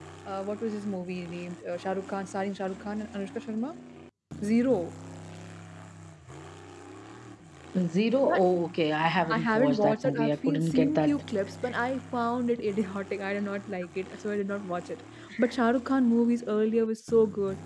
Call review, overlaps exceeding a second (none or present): present